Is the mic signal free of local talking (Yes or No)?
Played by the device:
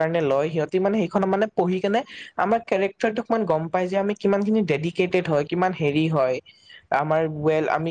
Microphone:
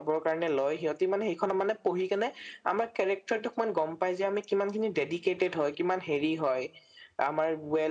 Yes